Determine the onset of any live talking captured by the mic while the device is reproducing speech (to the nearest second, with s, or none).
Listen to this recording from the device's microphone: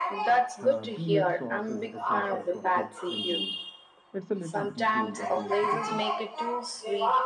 1 s